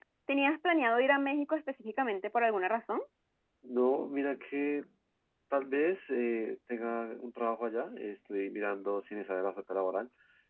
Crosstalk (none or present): none